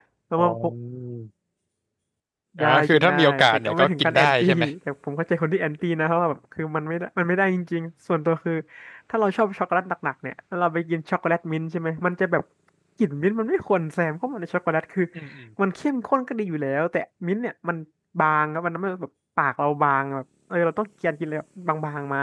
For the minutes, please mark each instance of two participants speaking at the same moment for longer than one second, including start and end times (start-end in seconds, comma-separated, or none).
2.6-4.6